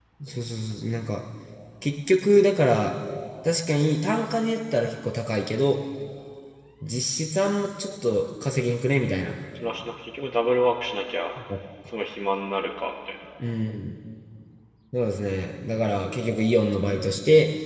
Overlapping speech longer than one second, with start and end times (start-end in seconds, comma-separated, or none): none